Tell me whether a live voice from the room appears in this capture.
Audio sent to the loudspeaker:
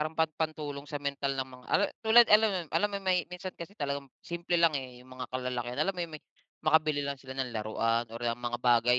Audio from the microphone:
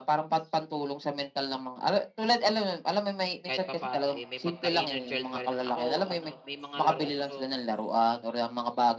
Yes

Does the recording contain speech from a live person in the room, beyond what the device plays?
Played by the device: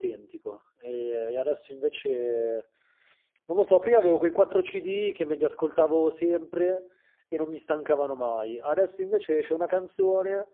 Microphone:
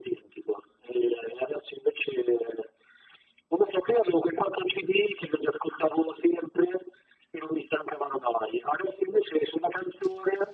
No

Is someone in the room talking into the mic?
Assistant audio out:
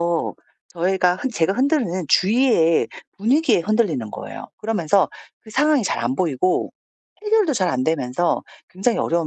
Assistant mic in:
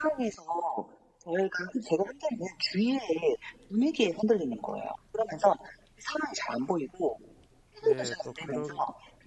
Yes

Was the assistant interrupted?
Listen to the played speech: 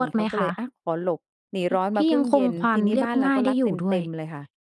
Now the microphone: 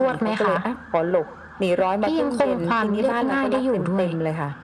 No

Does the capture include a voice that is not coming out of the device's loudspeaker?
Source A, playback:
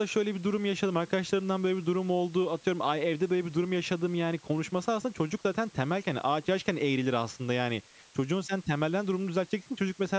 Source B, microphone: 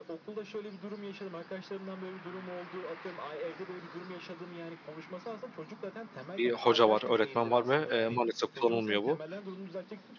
Yes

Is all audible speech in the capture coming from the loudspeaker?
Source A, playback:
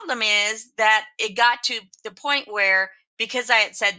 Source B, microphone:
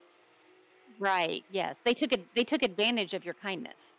No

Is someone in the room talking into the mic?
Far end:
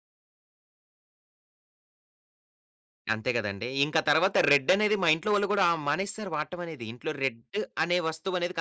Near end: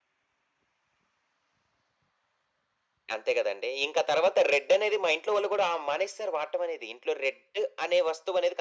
No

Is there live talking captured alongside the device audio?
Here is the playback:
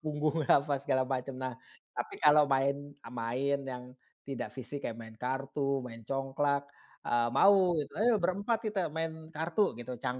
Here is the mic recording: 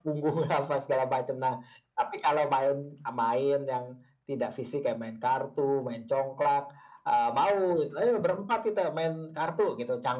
No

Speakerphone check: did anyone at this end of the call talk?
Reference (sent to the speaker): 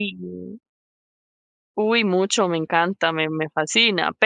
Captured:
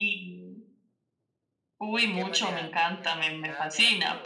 Yes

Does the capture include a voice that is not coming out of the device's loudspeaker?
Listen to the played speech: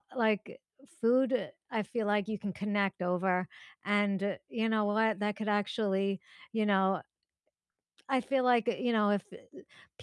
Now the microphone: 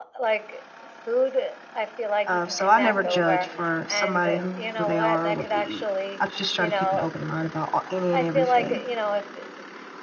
Yes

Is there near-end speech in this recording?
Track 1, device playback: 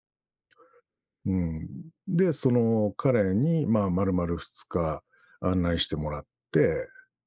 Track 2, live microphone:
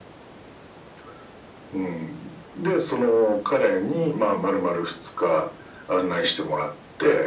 No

